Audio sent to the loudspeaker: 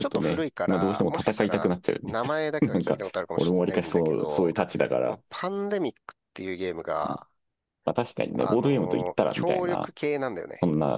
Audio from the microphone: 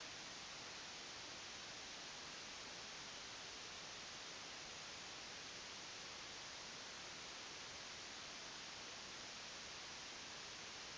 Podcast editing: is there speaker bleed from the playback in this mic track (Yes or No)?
No